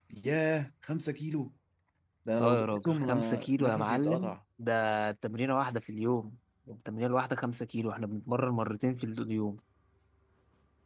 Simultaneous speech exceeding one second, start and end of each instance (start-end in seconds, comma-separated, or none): 2.4-4.4